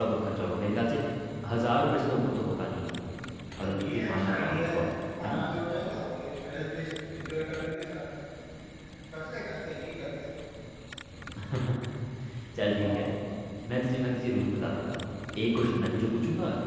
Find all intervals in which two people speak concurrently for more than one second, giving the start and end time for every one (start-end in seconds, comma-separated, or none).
3.6-4.8